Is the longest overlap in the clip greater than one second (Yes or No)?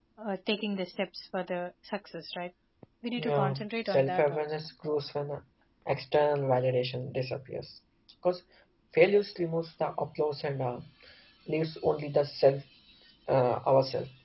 Yes